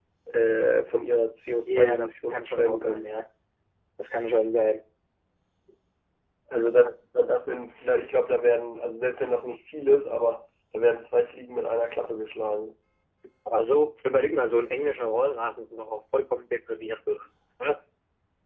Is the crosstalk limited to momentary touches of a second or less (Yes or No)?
No